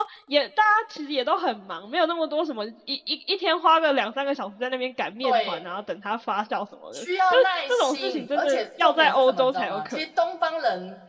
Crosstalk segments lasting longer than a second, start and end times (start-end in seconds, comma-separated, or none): 6.9-10.0